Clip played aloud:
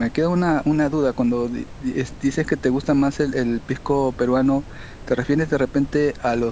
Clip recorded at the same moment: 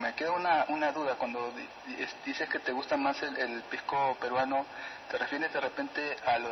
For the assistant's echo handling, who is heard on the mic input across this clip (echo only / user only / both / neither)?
echo only